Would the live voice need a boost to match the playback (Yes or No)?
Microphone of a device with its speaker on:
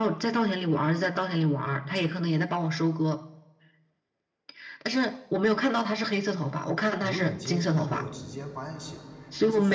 Yes